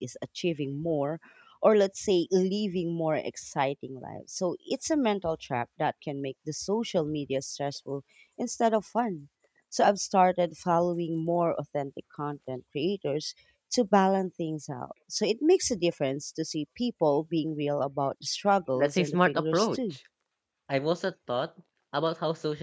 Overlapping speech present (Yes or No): Yes